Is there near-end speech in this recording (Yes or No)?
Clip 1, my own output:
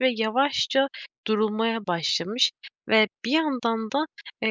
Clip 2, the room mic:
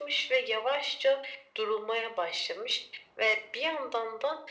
No